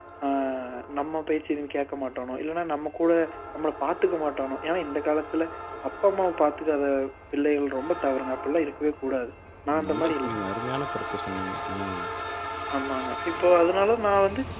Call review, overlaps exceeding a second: none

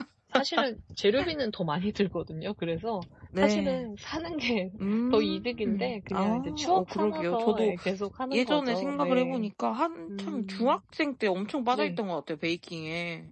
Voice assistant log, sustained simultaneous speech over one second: present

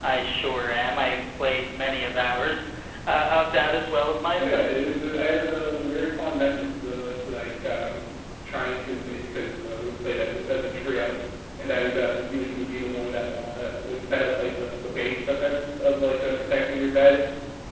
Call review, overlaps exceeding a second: none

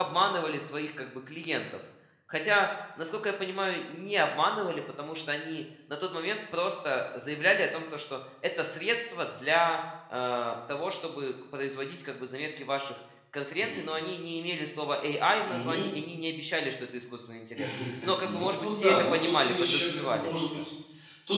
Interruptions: present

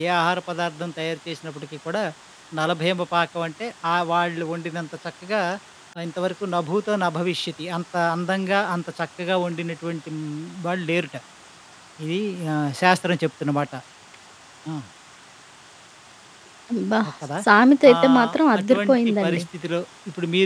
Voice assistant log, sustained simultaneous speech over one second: present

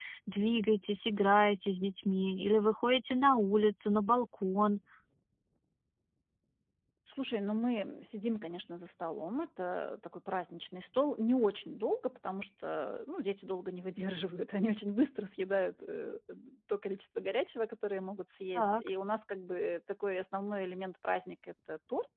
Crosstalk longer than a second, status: none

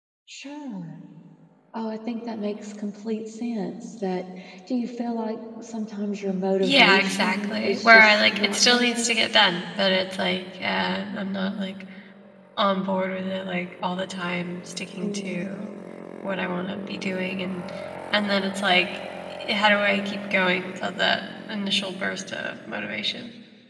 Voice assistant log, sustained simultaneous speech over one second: present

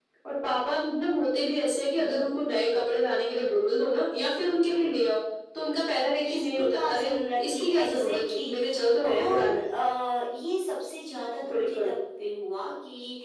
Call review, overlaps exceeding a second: present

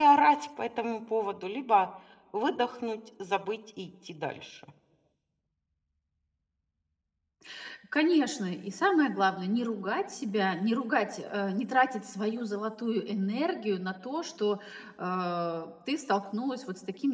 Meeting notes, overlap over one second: none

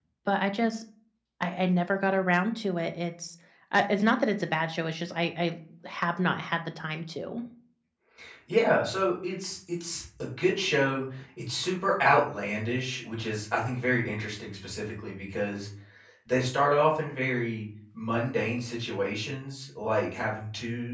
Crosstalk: none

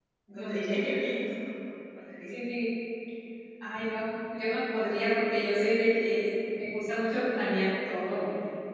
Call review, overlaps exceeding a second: none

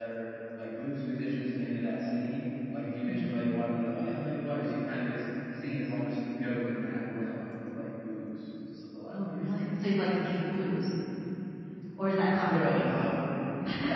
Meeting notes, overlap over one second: none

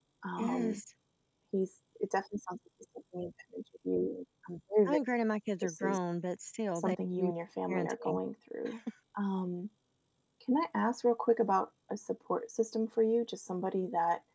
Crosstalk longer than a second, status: none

